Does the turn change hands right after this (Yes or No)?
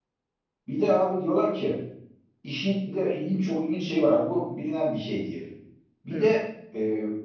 No